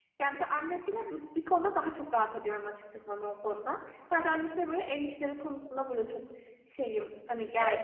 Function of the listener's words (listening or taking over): taking over